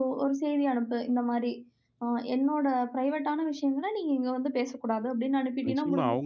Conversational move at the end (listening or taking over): taking over